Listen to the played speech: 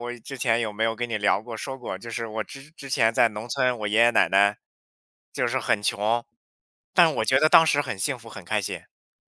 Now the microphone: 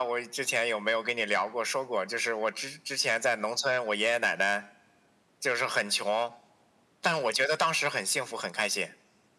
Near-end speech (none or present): none